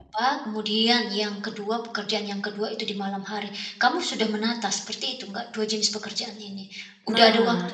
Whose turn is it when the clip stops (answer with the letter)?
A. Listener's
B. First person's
A